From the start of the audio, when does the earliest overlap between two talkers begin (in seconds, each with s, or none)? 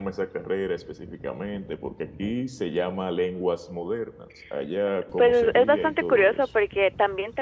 5.0 s